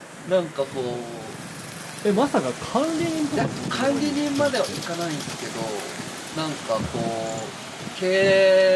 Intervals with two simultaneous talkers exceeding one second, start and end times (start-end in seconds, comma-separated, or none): 3.4-4.8